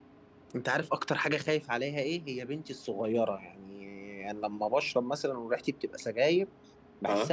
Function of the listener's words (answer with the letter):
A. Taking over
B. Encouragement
B